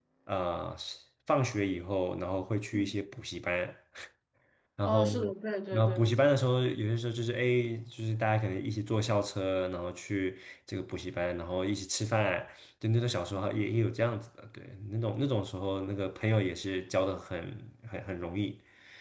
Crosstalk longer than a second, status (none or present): none